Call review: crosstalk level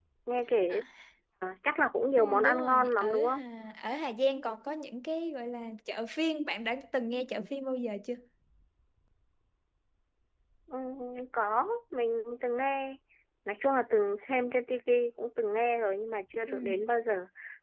present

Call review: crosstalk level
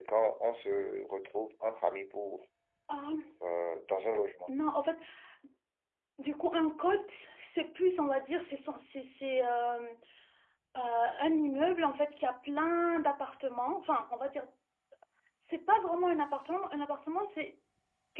none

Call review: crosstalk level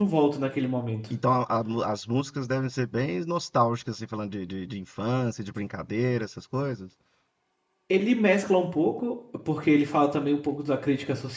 none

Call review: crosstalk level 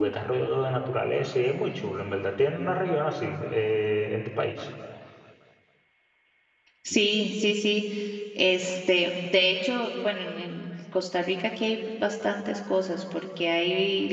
none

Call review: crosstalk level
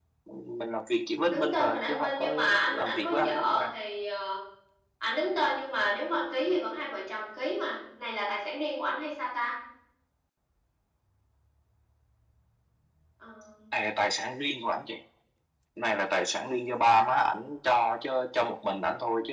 present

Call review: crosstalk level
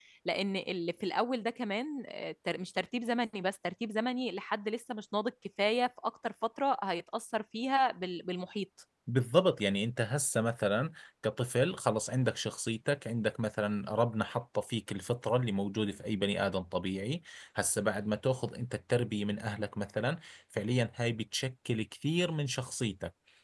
none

